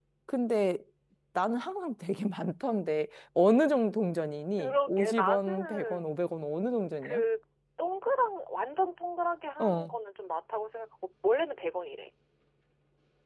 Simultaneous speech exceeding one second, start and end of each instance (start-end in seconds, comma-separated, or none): 4.6-6.1